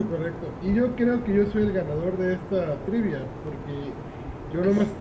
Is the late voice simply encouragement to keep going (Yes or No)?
Yes